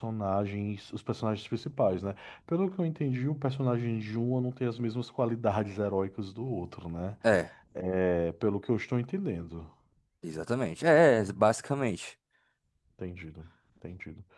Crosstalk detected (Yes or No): No